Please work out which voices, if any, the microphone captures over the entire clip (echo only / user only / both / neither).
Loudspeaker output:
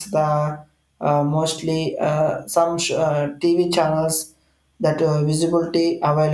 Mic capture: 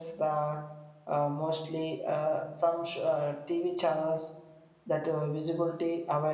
echo only